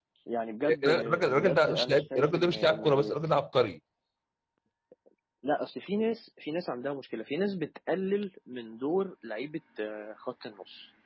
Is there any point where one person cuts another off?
Yes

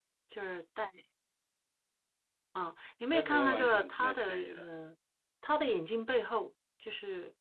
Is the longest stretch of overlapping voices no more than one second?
No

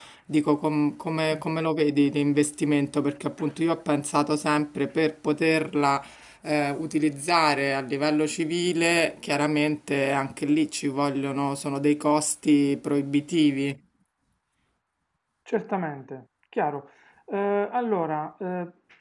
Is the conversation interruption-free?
Yes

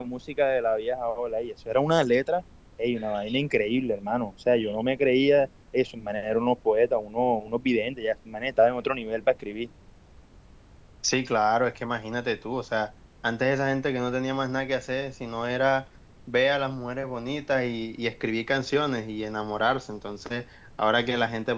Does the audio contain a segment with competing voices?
No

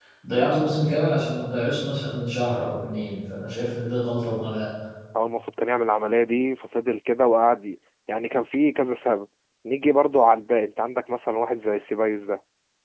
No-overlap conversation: Yes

